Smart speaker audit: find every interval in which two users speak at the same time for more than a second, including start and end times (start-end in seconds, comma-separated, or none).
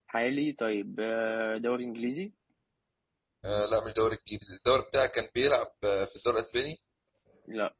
none